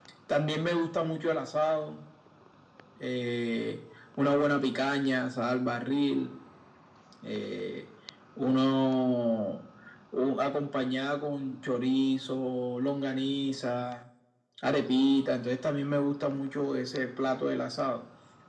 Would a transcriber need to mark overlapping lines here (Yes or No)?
No